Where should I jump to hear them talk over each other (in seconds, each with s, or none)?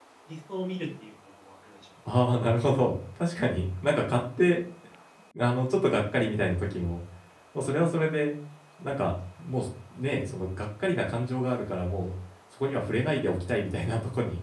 none